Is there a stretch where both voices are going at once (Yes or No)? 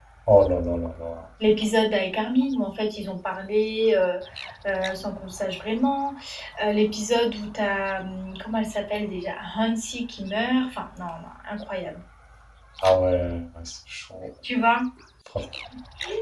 No